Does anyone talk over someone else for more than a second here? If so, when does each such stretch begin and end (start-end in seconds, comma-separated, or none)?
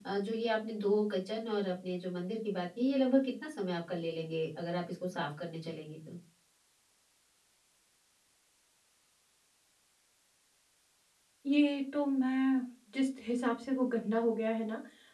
none